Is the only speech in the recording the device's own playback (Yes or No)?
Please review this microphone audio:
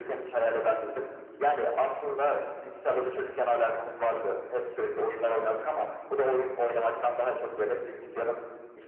Yes